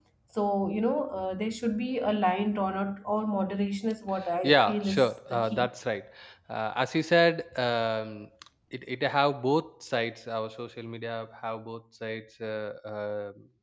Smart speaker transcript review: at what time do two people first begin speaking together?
4.4 s

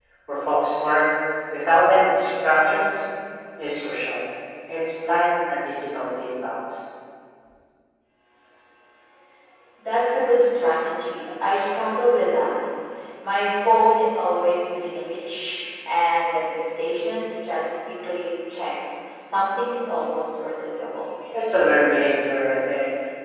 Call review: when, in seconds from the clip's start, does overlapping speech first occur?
none

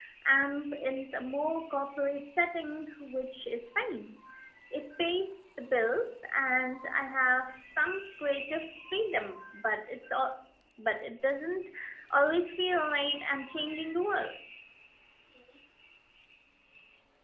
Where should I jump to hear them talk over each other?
none

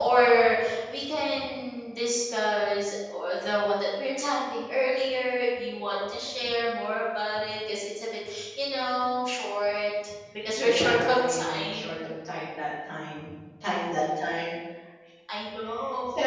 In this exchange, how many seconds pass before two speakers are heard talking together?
10.6 s

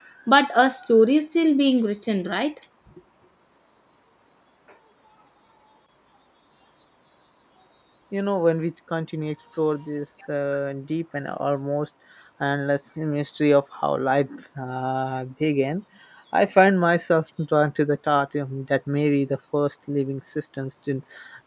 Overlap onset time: none

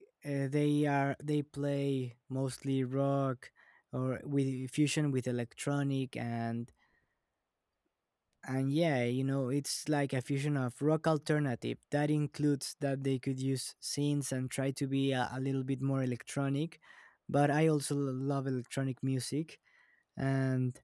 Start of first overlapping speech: none

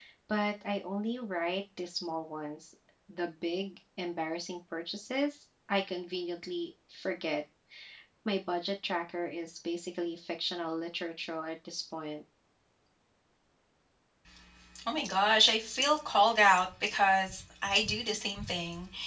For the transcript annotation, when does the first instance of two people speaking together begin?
none

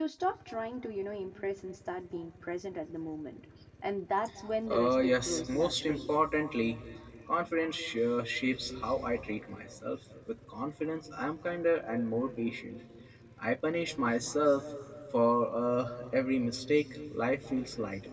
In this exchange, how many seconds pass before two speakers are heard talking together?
4.7 s

